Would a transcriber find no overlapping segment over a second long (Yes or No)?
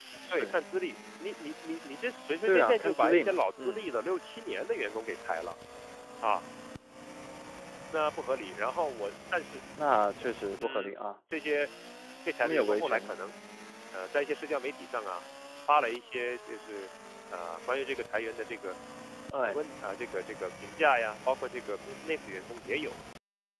No